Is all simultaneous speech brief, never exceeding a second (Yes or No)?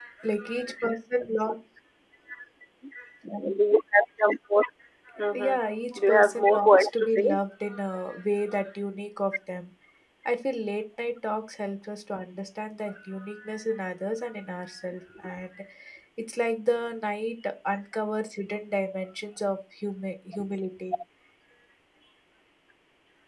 No